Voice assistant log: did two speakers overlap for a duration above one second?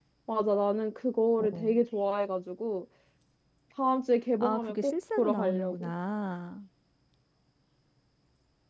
Yes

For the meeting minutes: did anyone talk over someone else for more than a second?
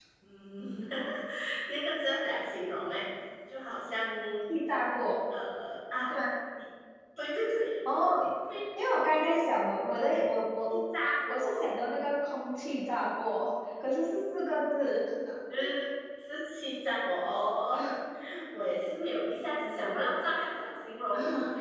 No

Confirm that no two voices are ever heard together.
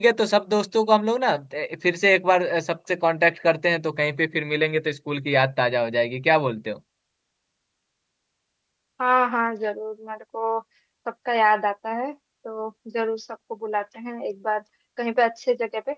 Yes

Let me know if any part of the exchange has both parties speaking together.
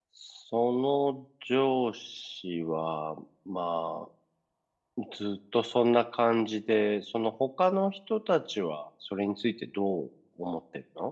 No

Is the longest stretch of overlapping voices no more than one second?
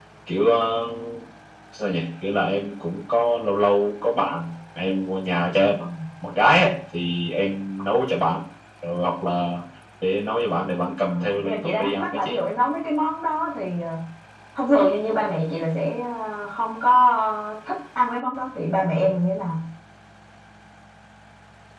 No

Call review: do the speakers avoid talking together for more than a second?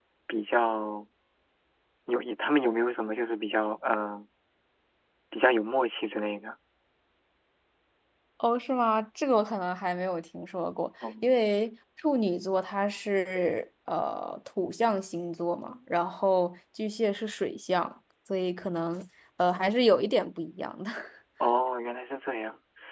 Yes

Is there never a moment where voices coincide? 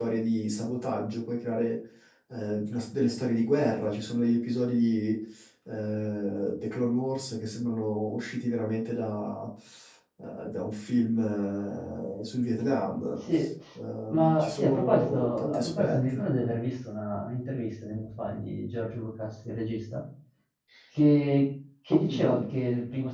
No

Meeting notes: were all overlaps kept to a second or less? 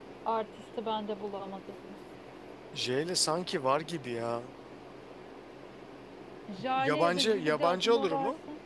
No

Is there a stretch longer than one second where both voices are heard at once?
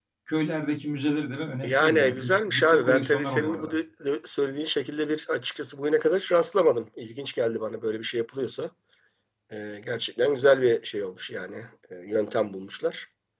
Yes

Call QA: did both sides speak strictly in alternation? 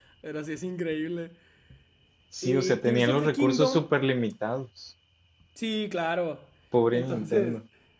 No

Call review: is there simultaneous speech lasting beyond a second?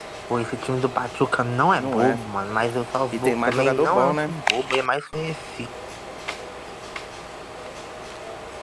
Yes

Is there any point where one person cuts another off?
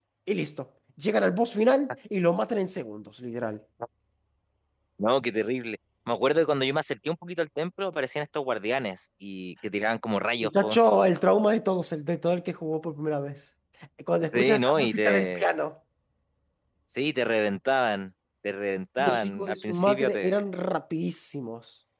Yes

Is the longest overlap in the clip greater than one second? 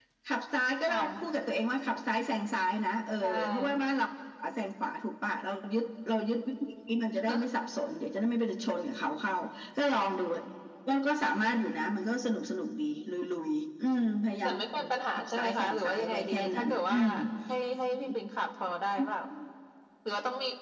Yes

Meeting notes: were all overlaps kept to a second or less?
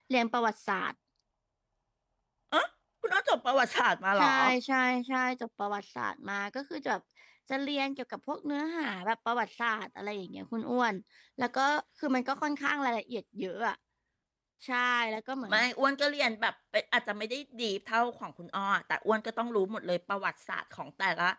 Yes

